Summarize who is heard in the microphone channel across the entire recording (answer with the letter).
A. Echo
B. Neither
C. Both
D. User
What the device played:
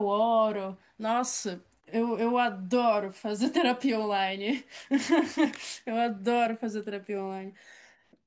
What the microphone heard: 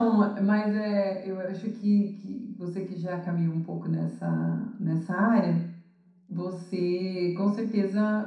D